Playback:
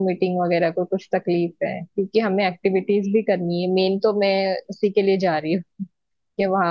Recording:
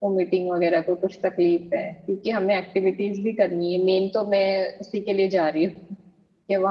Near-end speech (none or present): none